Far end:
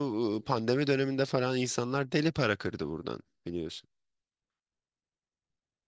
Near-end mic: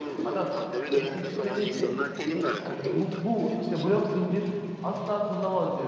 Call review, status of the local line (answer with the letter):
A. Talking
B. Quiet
A